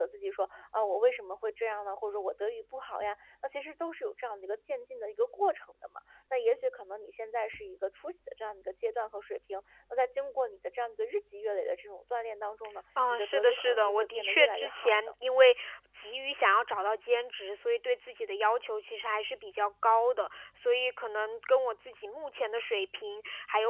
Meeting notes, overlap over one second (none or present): present